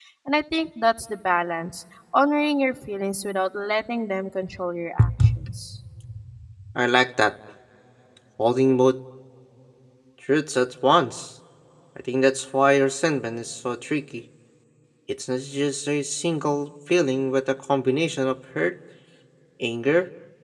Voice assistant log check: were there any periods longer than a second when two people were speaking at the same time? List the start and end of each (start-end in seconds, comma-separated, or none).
none